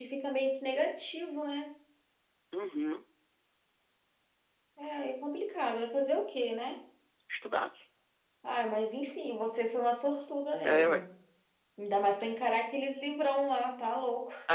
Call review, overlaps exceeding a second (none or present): none